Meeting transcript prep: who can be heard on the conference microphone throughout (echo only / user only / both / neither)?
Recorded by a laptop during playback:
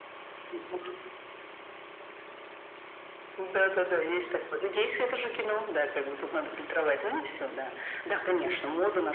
echo only